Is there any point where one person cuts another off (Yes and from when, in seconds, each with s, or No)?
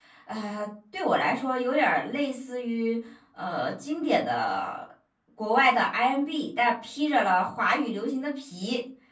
No